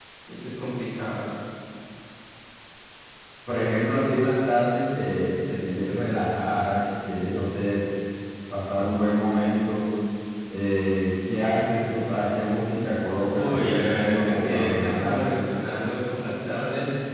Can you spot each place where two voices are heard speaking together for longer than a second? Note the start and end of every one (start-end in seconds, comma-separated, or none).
13.3-15.5